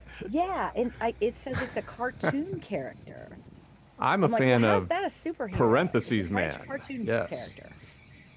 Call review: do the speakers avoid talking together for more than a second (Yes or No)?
No